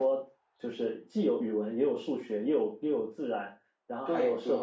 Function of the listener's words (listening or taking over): listening